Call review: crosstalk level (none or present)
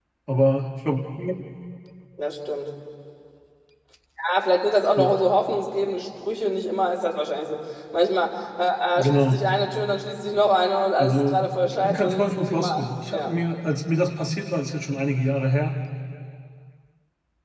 present